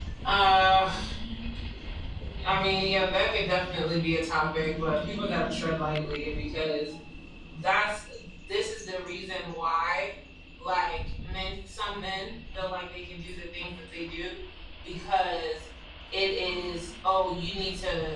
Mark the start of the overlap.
none

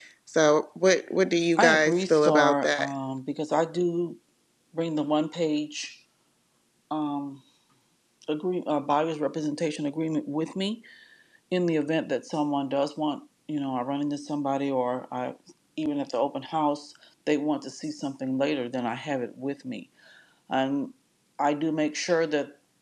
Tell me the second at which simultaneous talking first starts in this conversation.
2 s

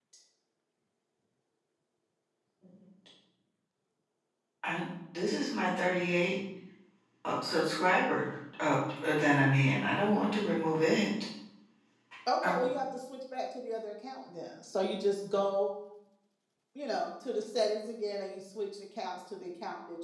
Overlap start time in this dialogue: none

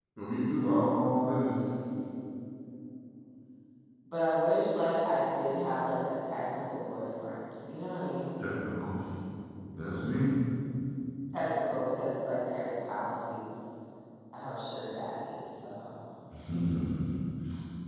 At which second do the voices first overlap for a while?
none

